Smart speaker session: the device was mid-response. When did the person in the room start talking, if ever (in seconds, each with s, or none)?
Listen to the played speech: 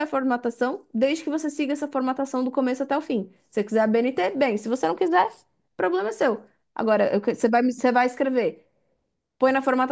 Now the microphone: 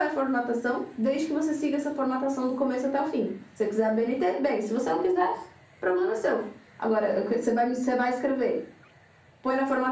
none